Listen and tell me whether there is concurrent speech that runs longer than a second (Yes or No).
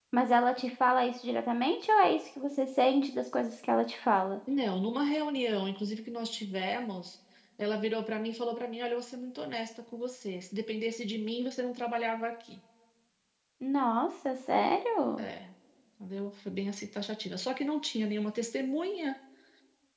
No